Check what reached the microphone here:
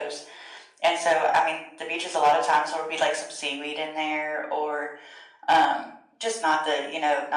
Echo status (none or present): present